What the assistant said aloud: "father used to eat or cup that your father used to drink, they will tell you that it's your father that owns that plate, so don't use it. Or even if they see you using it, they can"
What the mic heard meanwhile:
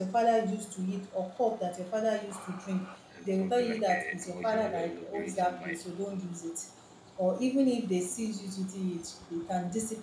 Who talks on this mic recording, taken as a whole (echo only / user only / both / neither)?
both